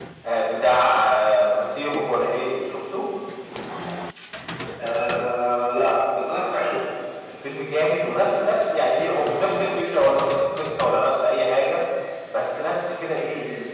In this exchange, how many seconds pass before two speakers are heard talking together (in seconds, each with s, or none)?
none